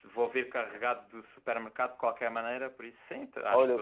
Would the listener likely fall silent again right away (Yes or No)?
No